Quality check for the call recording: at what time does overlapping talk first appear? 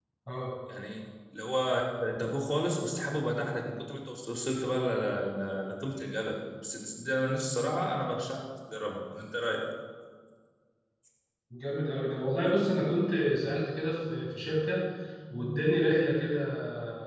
none

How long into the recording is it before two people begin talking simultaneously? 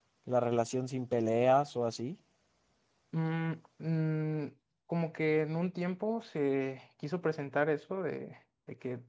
none

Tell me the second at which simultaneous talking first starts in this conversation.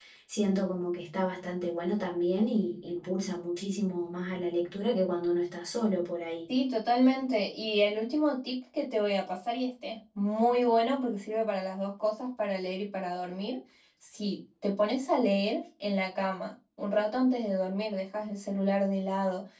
none

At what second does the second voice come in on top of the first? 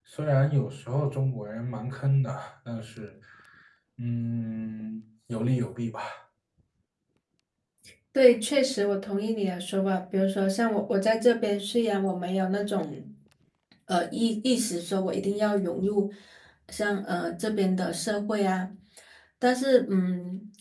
none

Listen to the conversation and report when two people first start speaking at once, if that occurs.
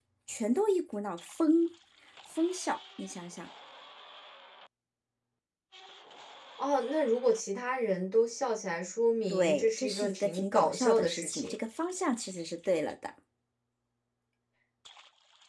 9.3 s

